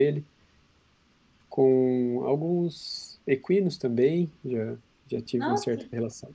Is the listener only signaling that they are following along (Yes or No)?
Yes